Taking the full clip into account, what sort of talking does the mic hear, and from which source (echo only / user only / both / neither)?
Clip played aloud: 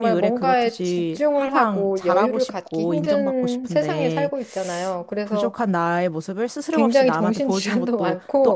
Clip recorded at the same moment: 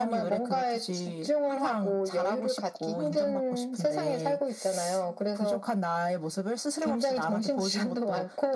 echo only